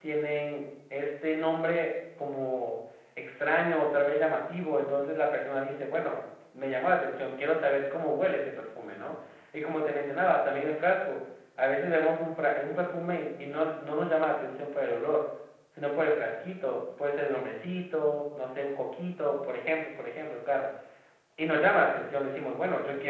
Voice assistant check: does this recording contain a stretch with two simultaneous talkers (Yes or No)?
No